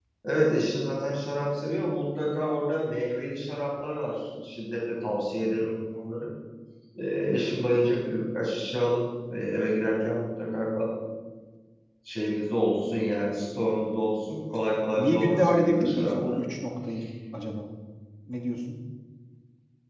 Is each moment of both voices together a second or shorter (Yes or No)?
No